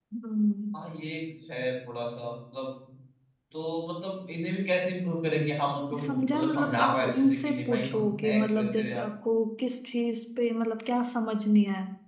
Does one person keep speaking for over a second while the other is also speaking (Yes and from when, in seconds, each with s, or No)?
Yes, from 5.9 s